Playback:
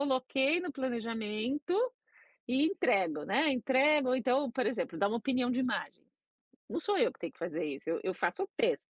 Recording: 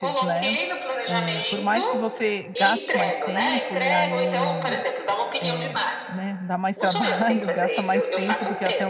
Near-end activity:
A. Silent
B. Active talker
B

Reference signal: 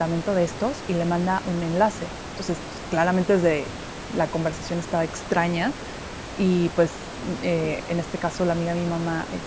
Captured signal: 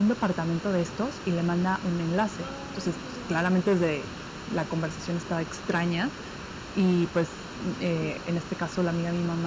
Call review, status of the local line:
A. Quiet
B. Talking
B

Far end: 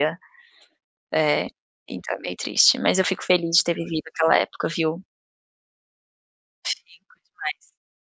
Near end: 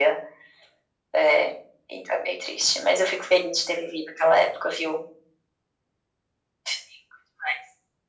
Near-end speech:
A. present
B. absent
B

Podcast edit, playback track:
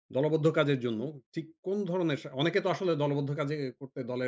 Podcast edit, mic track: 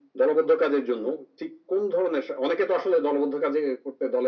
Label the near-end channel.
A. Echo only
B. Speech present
A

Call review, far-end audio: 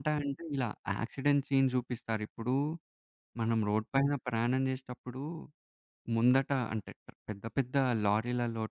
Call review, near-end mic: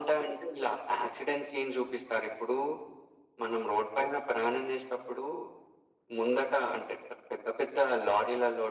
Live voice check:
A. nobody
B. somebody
A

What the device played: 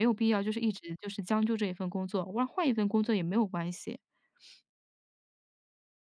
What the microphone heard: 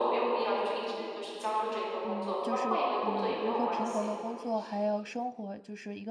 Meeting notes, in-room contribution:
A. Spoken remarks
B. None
A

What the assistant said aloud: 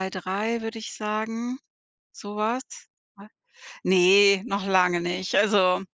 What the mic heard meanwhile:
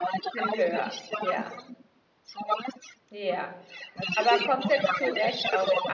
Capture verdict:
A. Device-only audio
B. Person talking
B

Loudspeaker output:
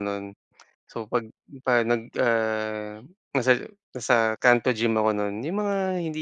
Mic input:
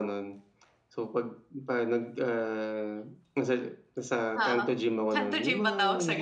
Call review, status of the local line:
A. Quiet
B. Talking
B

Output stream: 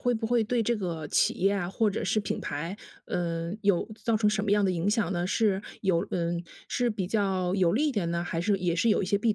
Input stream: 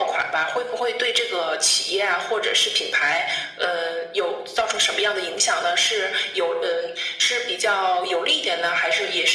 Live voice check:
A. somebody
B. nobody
B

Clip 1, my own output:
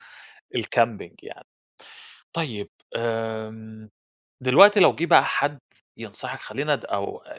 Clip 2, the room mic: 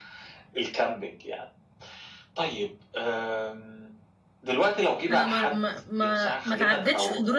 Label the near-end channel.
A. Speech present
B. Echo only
A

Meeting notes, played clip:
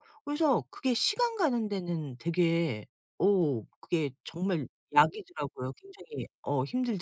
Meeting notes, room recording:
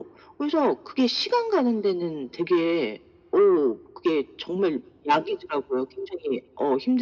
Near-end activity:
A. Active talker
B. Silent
B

